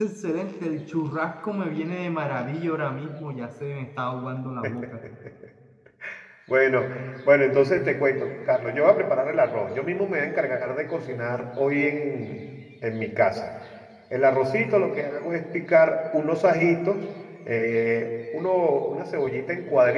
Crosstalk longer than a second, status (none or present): none